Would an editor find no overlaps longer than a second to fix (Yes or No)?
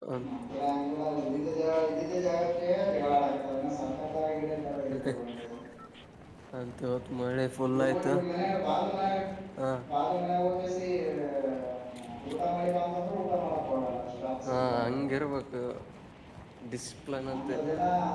Yes